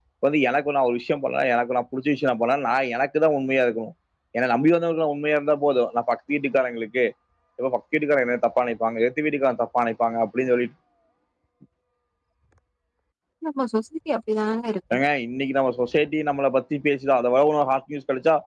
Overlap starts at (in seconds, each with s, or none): none